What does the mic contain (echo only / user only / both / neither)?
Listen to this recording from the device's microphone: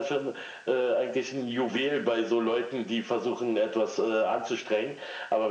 echo only